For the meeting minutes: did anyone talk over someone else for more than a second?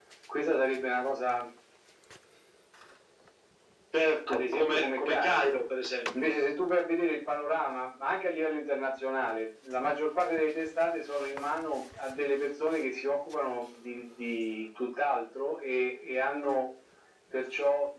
Yes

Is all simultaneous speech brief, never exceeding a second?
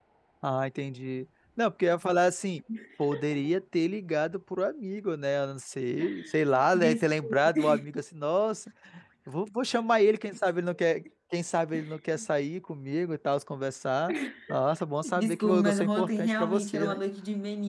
No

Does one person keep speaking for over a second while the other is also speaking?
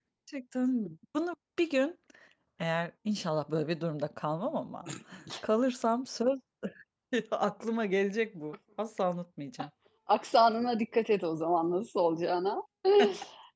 No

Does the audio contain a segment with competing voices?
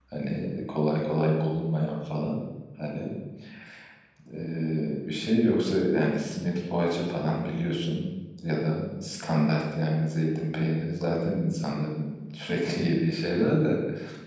No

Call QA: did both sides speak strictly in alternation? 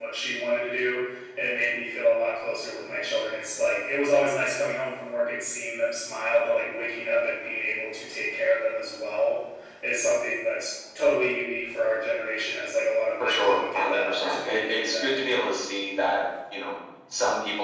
No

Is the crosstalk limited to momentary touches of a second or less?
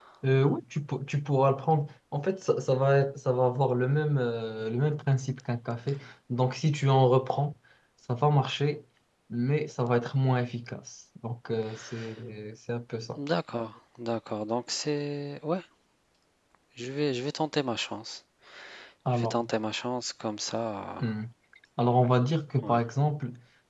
Yes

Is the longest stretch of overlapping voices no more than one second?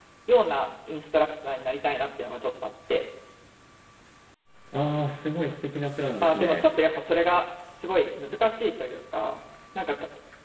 Yes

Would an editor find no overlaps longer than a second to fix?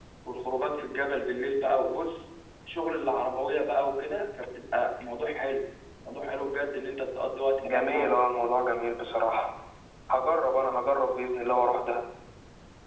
Yes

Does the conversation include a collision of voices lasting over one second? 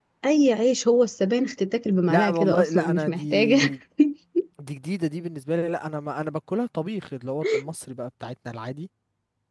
Yes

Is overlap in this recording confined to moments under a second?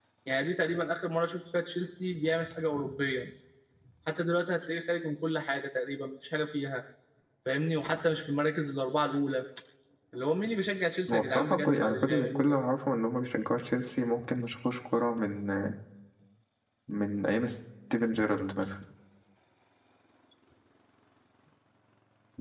No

